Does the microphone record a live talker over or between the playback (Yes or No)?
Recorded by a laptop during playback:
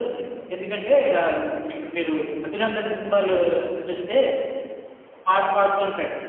No